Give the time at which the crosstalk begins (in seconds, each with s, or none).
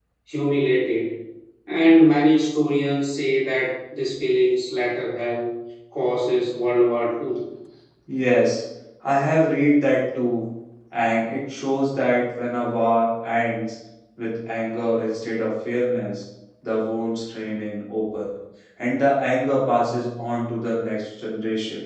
none